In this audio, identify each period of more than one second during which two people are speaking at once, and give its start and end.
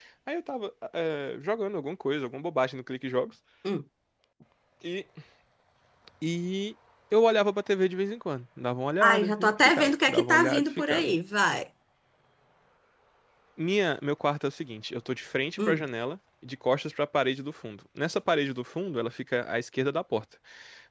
9.0-11.1

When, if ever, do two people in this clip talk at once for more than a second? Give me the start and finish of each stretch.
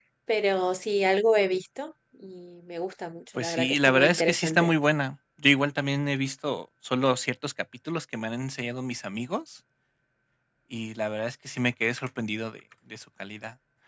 3.4-4.7

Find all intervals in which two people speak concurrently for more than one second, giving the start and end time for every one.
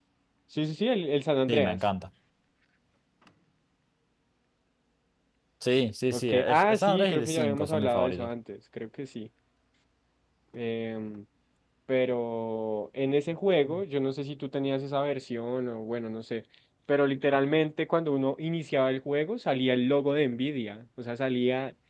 6.1-8.3

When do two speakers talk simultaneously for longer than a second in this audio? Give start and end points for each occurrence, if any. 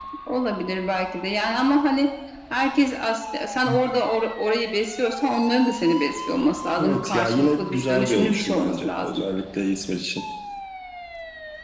6.8-9.2

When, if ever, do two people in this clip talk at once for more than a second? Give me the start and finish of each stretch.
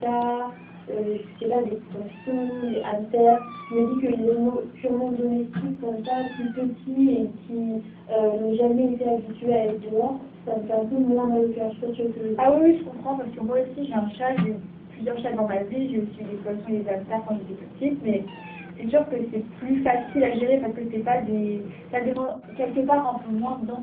none

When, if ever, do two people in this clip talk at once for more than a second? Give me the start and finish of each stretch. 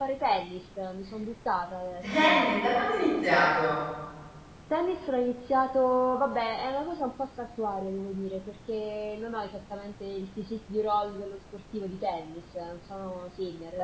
none

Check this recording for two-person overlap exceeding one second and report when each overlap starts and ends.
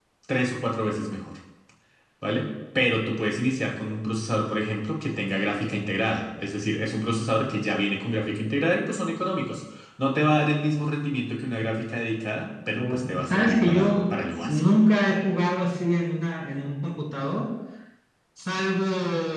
12.8-14.6

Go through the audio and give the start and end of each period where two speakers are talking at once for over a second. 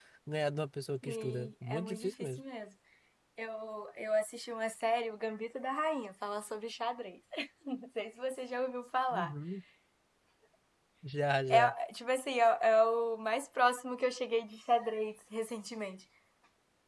1.0-2.4

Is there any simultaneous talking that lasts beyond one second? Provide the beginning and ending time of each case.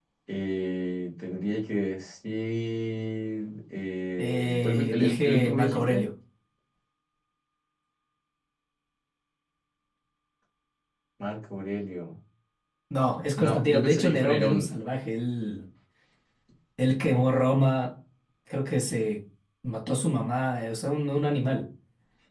4.2-6.1, 13.4-14.7

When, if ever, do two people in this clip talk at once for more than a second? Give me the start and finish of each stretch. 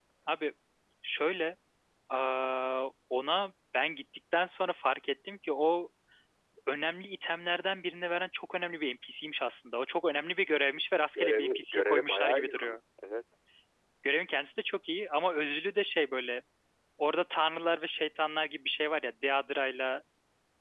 11.2-12.8

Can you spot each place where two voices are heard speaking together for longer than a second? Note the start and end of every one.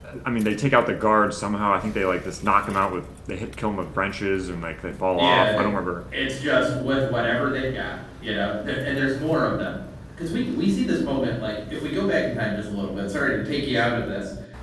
none

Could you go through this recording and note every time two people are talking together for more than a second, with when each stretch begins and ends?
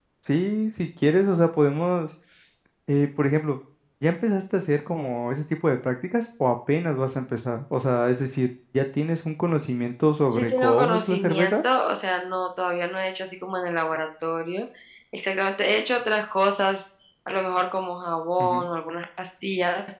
10.3-11.6

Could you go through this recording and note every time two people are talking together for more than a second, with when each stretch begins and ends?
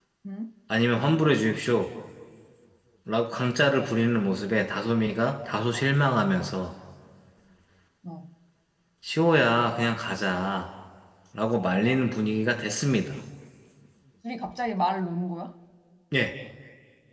none

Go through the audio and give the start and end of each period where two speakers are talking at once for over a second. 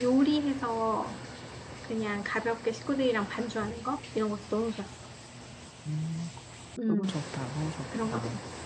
none

